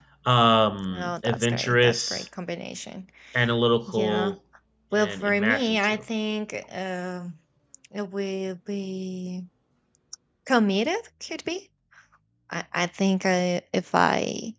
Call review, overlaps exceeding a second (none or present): present